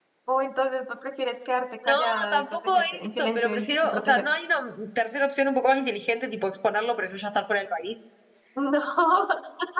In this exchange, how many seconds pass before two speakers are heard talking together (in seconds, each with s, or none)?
1.8 s